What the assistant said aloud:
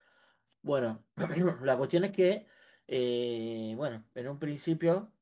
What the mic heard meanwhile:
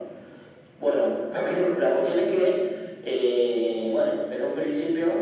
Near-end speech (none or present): none